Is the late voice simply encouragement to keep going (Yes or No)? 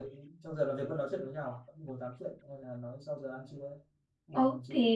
No